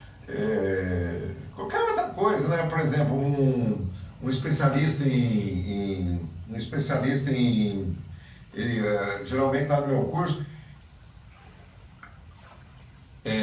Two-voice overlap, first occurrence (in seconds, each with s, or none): none